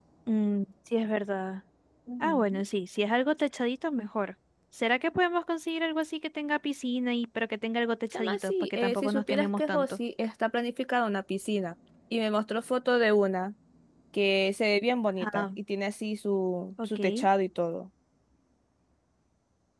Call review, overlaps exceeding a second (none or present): present